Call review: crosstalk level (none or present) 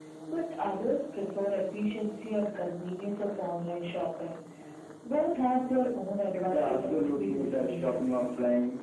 present